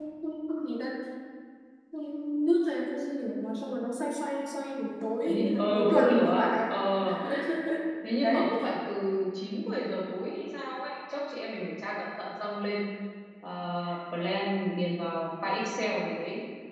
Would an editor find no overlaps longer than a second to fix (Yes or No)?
No